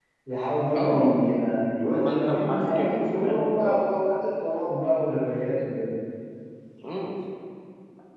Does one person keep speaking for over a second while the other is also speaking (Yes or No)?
Yes